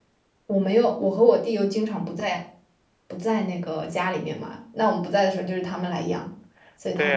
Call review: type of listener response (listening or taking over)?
taking over